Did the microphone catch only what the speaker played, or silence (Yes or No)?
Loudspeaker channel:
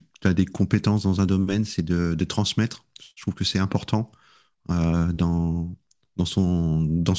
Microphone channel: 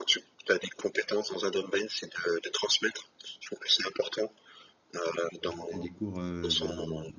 No